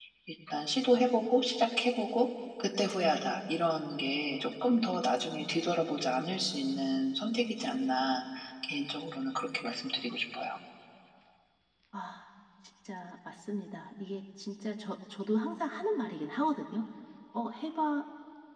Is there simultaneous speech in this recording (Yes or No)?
No